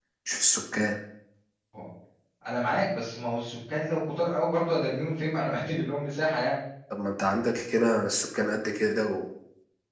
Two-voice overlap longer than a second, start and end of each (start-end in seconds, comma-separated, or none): none